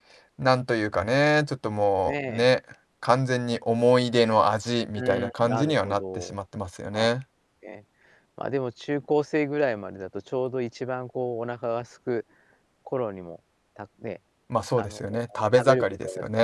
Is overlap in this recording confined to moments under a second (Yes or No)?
No